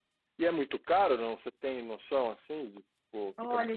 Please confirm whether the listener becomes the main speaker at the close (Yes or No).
Yes